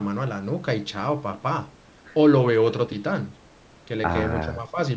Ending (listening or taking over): listening